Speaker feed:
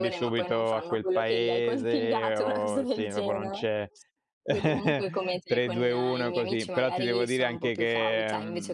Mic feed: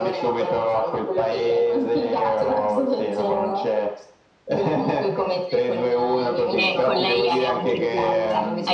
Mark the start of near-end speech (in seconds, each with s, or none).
6.5 s